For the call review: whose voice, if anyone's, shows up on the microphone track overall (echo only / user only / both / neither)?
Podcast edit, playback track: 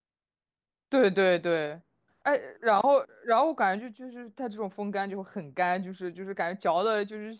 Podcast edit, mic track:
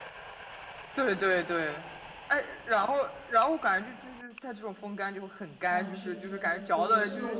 both